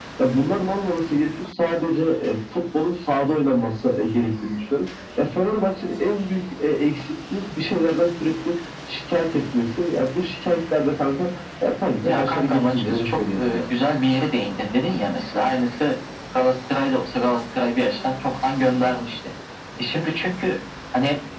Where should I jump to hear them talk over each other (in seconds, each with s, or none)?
12.0 s